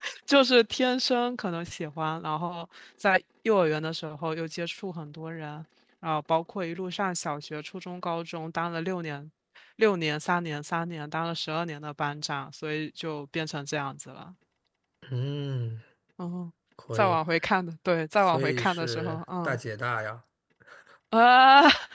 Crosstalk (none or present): present